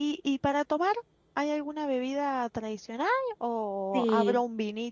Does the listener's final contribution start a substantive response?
No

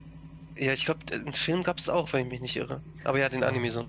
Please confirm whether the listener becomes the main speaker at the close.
Yes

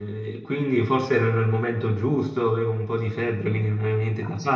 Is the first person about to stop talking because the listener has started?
Yes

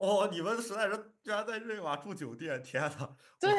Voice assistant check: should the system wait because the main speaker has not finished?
No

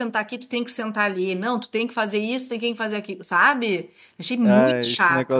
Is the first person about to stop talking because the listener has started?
Yes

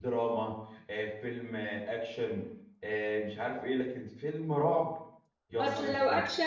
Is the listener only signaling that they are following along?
No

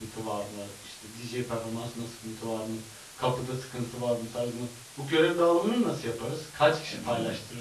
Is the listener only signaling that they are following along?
No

